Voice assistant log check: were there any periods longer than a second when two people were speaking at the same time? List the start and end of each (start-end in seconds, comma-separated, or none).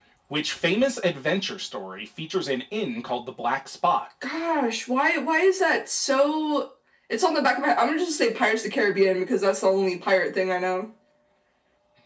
none